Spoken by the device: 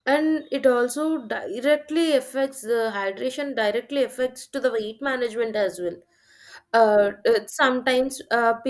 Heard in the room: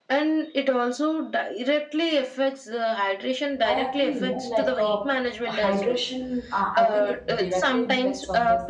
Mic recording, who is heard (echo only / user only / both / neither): both